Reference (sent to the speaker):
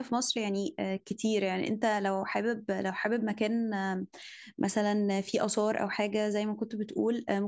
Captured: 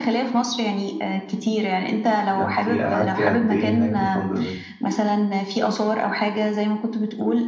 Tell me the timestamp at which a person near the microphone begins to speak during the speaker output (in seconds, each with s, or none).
2.3 s